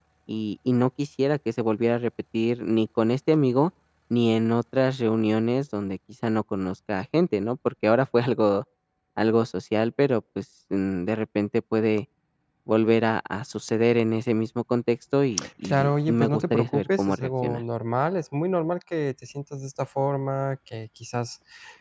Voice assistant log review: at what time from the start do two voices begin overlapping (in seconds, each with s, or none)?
15.6 s